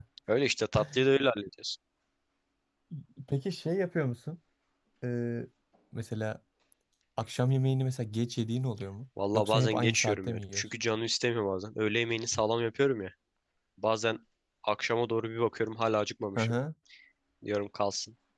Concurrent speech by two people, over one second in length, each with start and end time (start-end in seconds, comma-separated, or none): 9.3-10.6